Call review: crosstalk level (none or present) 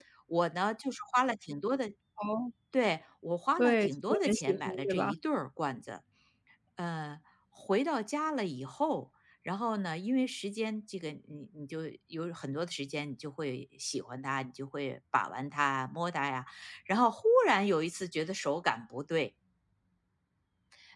present